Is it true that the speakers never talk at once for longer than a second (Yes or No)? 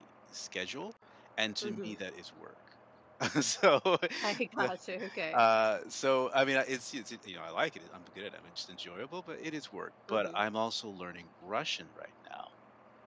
Yes